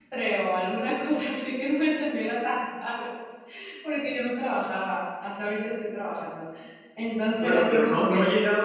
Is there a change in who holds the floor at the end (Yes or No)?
Yes